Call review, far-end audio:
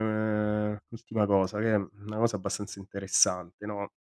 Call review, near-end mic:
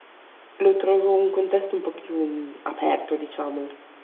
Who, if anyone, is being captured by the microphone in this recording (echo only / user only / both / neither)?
user only